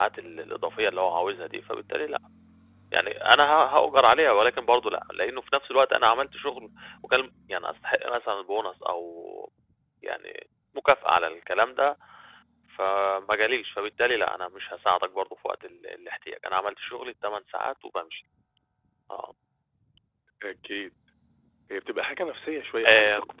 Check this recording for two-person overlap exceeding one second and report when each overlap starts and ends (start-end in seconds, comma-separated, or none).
none